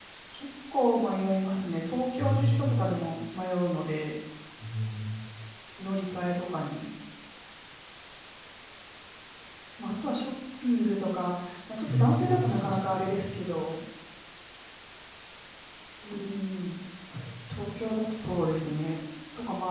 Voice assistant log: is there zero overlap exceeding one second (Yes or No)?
No